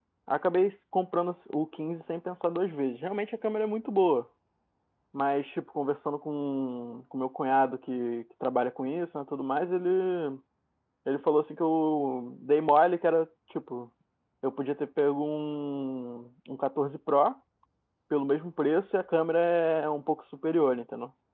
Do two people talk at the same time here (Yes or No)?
No